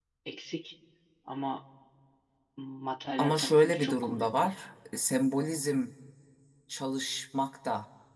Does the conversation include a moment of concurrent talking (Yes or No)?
Yes